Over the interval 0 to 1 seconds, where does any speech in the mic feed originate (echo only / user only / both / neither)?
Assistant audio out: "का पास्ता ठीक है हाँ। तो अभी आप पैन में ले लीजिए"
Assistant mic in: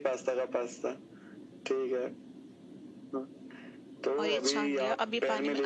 echo only